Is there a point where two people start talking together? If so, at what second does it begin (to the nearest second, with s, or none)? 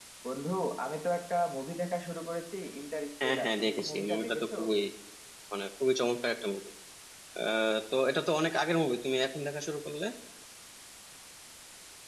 3 s